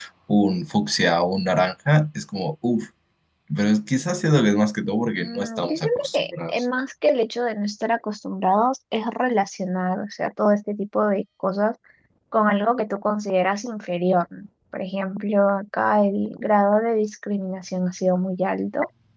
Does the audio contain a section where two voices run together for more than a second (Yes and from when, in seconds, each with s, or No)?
Yes, from 5.2 s